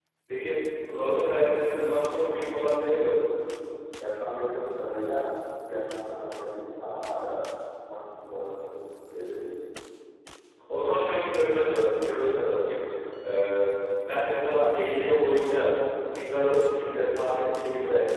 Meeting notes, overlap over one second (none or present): none